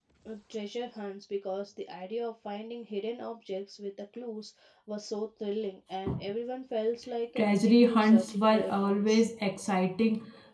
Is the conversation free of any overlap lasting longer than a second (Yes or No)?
No